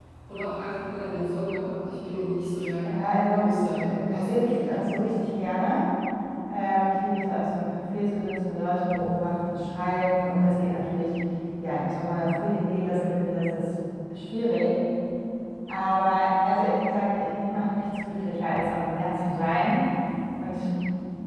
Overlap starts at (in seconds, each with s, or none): 3.3 s